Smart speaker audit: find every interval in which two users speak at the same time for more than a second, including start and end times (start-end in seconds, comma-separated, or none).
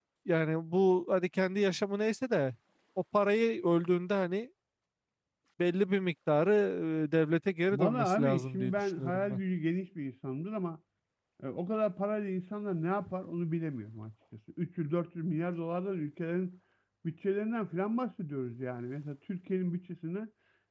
7.7-9.4